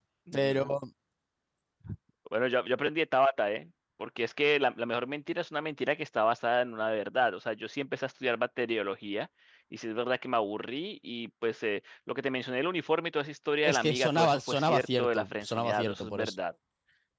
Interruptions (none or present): present